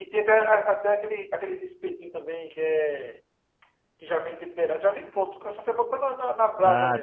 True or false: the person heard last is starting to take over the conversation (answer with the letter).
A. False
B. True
B